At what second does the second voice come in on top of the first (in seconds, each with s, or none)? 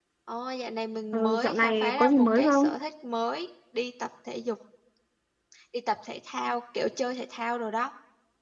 1.1 s